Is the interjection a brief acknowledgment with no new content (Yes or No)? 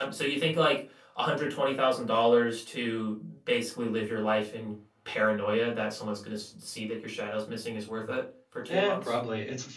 No